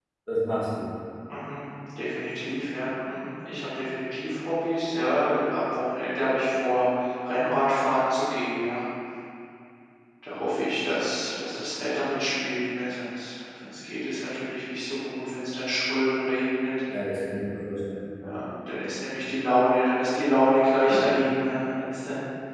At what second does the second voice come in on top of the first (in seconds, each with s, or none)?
none